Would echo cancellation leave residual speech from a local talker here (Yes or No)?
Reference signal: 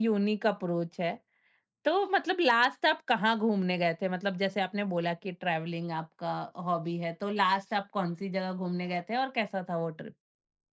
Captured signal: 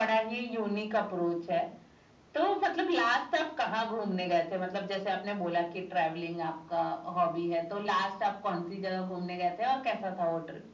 No